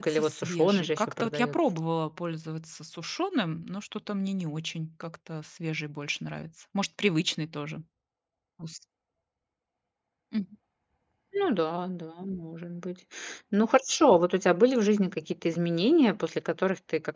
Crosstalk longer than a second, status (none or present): present